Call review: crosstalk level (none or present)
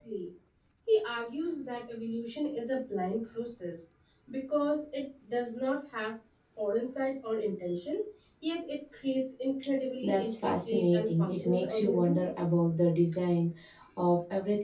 present